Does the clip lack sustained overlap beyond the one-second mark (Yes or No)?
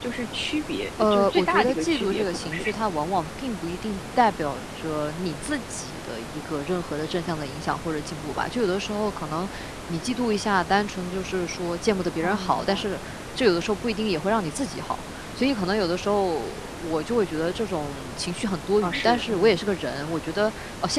No